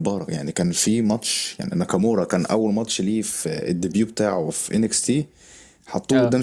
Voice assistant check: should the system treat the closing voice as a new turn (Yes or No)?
No